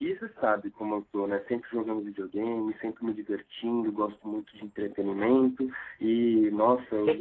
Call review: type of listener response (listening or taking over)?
listening